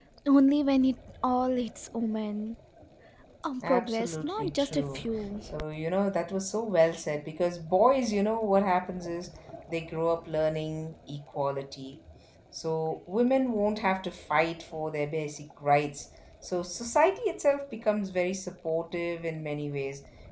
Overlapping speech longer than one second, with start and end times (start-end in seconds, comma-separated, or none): 3.7-5.0